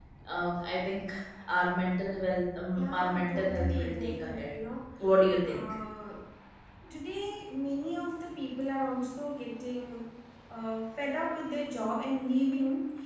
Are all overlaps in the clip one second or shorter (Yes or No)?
No